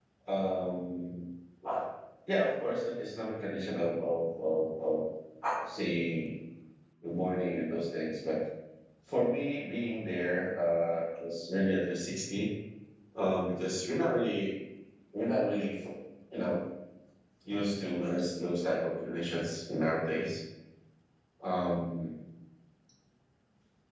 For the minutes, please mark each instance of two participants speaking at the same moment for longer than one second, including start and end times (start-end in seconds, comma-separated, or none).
none